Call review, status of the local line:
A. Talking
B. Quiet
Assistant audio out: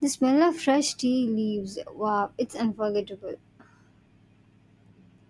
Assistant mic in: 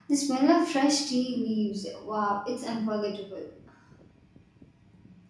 B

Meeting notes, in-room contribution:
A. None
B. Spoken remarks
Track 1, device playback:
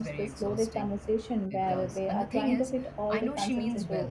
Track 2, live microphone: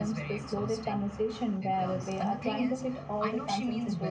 A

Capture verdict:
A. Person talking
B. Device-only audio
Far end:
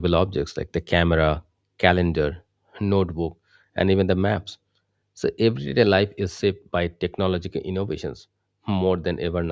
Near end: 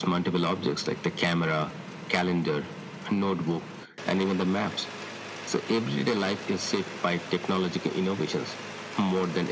B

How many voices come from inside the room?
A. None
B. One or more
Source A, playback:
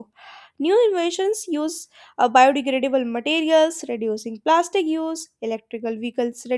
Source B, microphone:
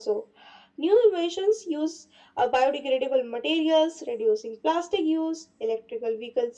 A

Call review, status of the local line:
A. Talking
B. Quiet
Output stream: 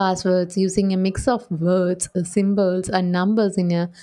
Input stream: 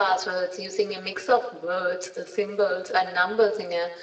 B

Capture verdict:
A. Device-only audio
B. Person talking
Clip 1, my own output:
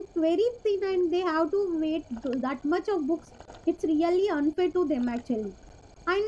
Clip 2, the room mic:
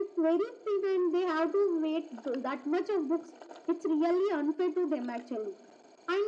A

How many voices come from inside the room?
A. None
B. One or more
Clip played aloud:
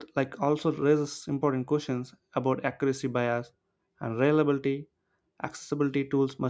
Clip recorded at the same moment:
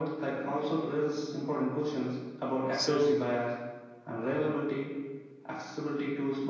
B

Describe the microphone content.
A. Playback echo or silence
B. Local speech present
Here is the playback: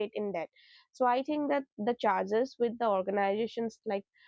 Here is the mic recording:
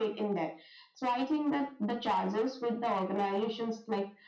A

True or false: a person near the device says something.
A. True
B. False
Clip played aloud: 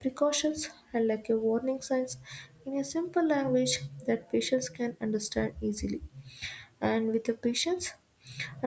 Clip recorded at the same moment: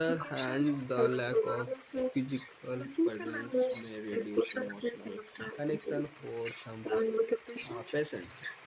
A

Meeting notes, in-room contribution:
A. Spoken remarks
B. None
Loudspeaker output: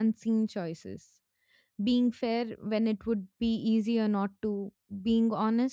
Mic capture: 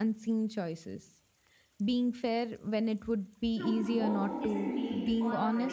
A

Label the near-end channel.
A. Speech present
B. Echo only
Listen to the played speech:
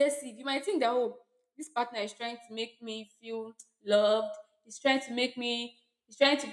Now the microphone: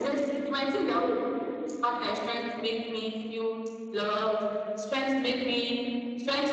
B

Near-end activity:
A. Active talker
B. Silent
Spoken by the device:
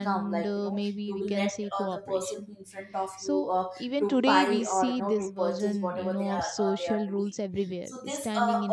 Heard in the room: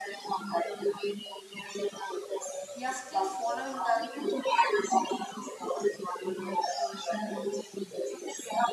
A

